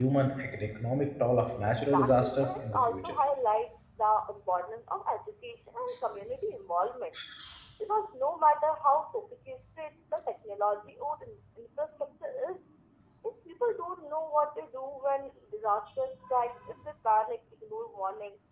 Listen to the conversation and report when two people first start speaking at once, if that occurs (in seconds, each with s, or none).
1.8 s